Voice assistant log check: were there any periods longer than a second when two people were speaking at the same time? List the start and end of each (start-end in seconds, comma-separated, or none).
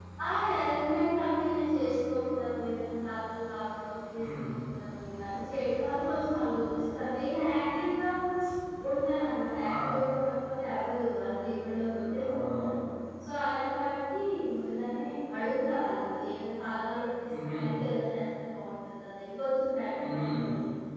none